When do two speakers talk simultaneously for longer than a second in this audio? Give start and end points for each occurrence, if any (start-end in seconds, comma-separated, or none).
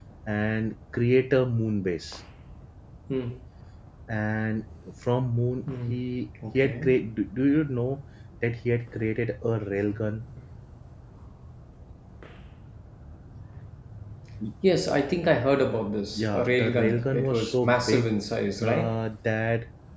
16.1-18.1